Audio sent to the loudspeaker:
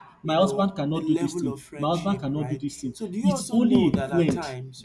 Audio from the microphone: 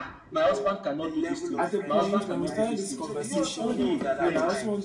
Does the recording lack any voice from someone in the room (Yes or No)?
No